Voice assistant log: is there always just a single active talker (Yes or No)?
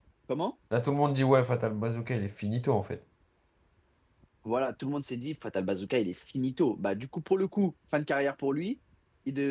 Yes